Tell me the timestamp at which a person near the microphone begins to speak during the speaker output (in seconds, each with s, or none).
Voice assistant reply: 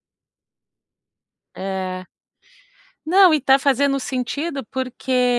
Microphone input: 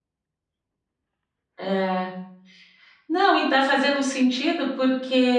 none